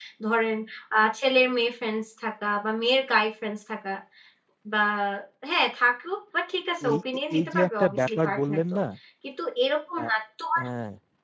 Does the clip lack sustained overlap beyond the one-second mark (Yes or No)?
No